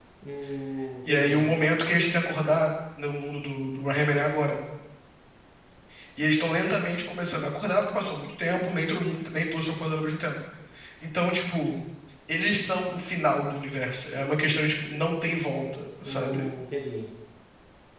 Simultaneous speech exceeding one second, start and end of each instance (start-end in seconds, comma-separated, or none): none